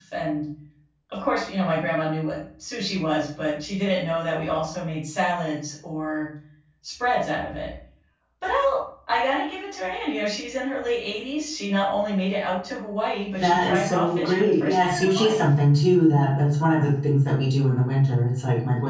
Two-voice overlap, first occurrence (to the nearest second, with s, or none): 13 s